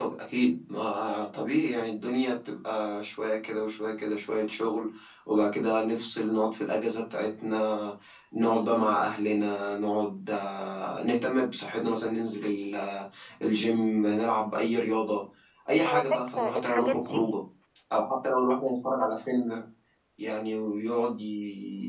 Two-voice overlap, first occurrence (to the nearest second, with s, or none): 16 s